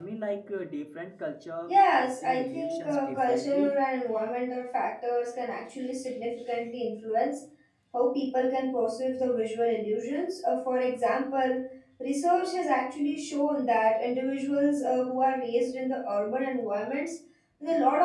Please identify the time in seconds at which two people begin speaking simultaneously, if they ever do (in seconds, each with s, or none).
1.7 s